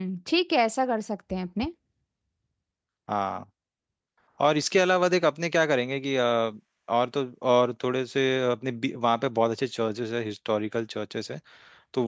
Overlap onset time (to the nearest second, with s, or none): none